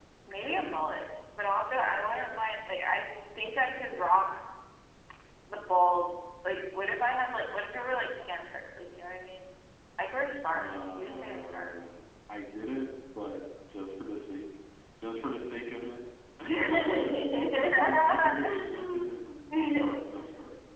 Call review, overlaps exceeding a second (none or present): present